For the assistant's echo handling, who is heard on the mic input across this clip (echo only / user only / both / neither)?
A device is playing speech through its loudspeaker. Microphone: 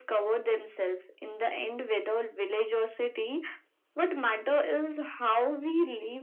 echo only